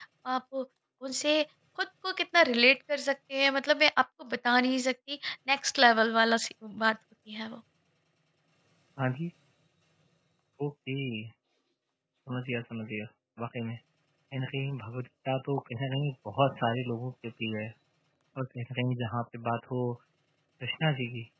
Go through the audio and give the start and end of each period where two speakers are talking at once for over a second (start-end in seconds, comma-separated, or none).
none